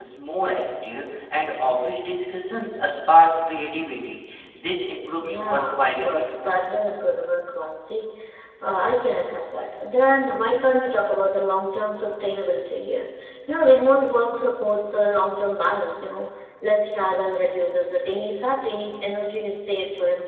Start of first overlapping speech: 5.2 s

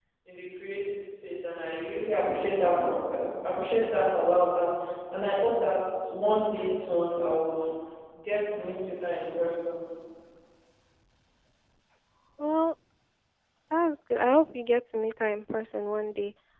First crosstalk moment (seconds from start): none

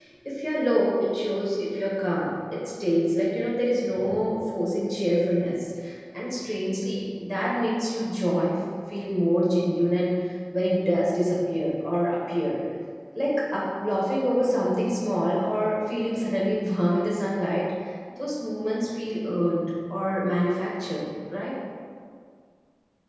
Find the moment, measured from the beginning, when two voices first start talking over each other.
none

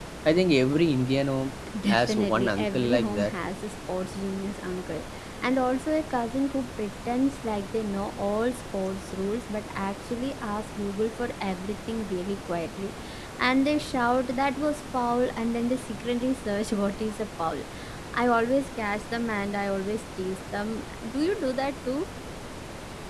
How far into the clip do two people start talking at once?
1.9 s

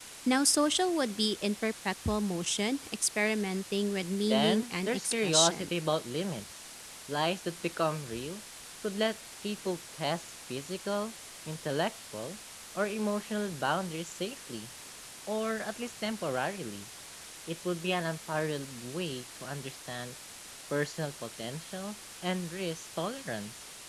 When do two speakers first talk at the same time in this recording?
4.2 s

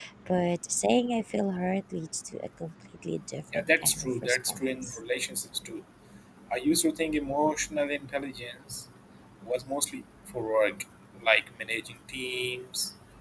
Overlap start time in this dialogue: 3.5 s

